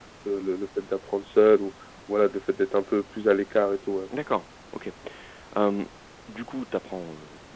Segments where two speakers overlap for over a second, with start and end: none

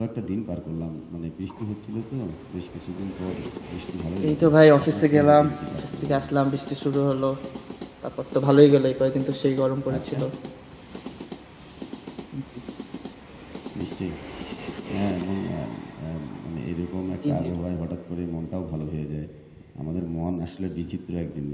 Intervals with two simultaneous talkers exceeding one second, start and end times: 4.2-6.2

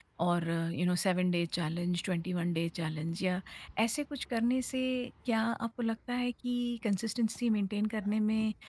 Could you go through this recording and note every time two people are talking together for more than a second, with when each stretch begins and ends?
none

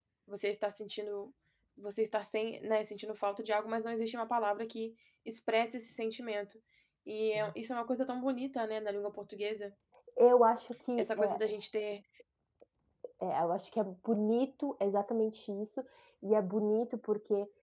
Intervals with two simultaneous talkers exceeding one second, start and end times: none

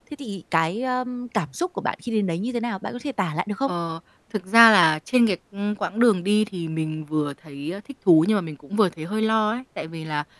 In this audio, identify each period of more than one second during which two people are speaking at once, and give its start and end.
none

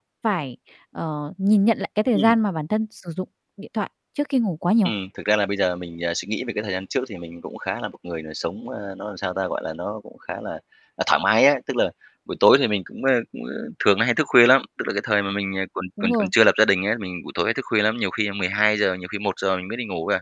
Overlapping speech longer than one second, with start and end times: none

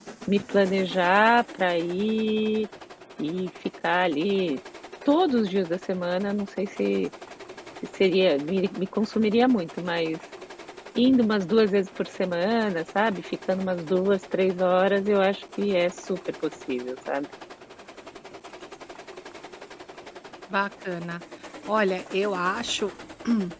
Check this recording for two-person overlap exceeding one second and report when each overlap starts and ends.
none

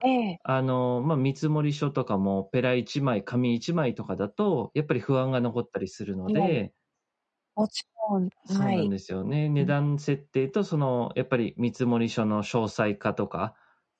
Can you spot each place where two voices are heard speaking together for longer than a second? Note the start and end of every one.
none

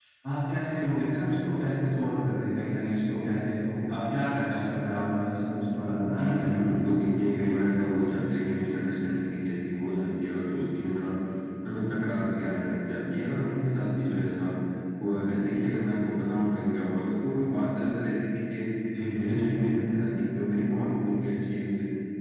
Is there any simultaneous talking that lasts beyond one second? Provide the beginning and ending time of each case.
none

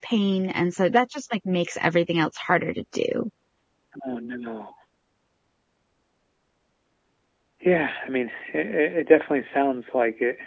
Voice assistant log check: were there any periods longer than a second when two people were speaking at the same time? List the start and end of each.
none

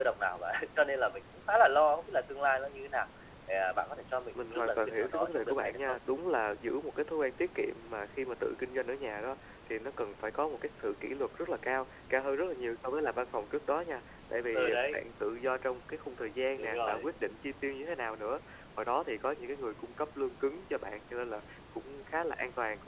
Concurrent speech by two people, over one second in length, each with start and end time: 4.3-6.0

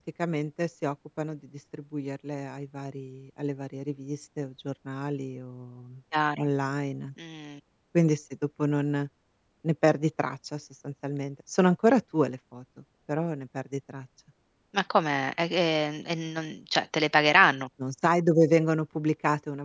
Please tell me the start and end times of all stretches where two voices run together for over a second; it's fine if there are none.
none

